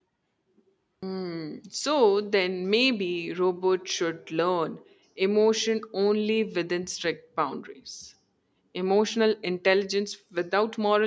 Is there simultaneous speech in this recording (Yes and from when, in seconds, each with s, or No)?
No